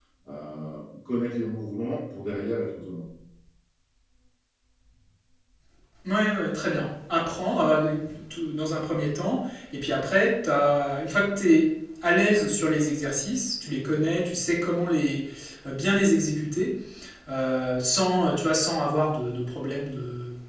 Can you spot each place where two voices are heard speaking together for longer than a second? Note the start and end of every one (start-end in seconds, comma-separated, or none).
none